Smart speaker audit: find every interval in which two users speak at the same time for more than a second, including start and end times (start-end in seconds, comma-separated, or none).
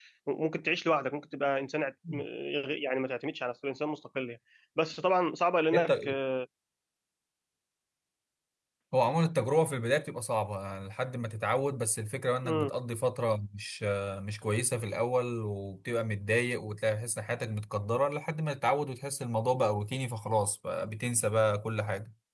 none